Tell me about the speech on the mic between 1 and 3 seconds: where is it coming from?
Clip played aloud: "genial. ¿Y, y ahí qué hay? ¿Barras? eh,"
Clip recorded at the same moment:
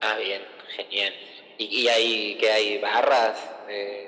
echo only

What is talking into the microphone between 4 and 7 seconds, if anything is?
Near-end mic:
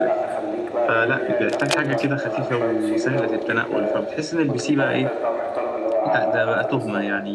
both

